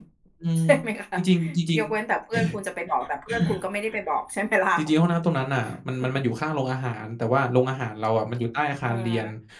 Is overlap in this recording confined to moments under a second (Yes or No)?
Yes